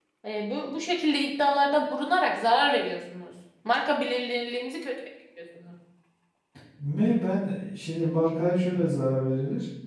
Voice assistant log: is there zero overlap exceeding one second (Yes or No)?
Yes